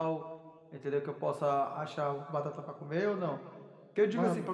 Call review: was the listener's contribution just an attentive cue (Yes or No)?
Yes